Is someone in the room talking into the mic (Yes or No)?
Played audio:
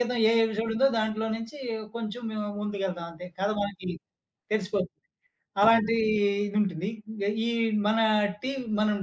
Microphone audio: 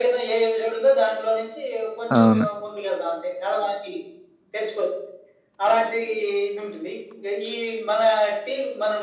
Yes